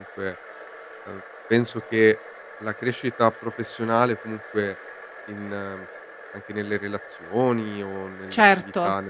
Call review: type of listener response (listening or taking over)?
listening